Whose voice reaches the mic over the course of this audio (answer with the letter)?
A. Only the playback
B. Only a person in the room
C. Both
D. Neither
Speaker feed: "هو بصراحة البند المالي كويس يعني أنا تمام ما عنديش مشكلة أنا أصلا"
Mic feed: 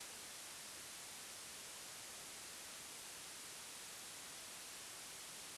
D